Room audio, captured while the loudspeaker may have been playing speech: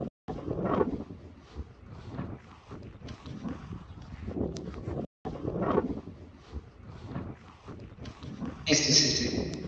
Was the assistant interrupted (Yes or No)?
Yes